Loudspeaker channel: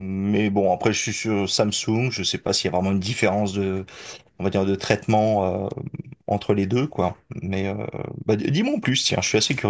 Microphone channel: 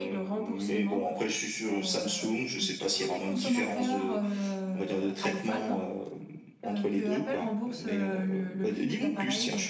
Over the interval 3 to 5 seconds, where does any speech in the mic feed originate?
both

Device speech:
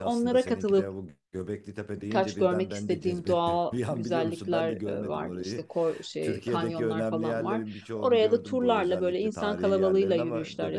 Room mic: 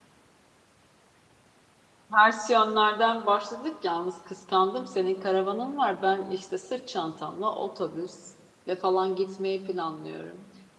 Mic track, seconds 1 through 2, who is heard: neither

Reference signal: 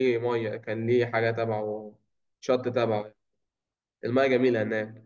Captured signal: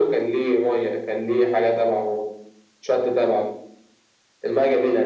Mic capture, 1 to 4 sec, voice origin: echo only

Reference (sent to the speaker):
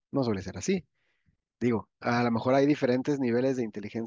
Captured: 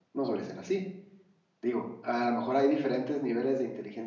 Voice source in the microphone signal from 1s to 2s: echo only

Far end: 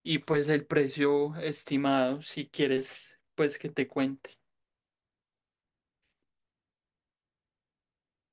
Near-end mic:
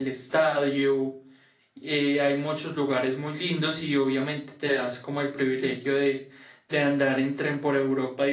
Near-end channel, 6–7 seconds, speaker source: user only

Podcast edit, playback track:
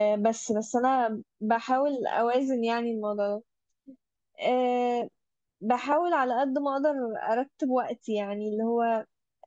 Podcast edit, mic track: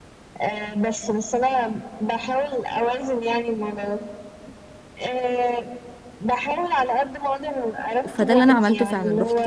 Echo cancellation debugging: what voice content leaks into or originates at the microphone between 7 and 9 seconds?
both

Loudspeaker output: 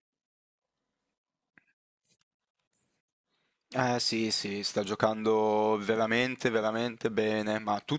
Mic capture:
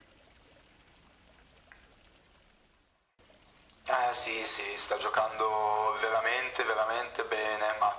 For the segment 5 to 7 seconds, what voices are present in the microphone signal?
echo only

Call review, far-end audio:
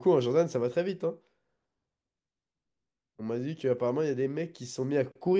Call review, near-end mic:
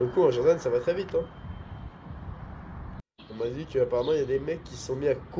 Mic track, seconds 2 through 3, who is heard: neither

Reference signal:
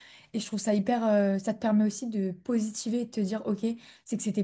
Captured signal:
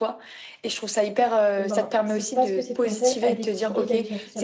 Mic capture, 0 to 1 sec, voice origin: echo only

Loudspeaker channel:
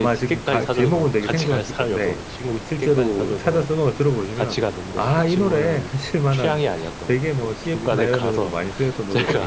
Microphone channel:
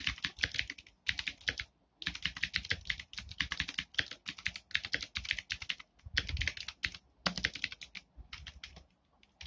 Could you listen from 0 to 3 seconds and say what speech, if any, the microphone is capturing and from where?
neither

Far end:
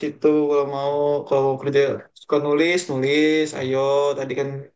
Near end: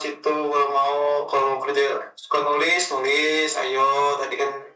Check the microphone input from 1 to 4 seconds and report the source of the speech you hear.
echo only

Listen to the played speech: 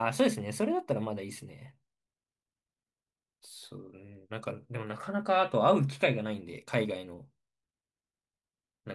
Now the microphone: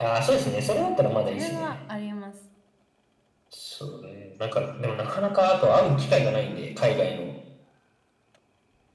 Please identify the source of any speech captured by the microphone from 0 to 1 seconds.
echo only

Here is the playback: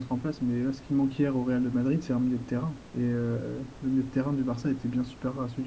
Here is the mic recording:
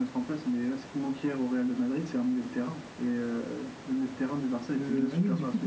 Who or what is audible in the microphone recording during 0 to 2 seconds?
echo only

